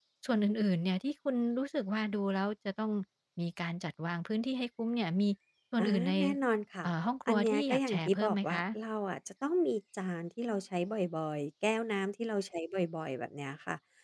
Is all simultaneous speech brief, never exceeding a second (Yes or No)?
No